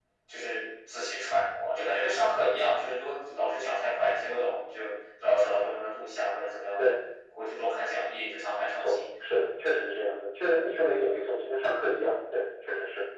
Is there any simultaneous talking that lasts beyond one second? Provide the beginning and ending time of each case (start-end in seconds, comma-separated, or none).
none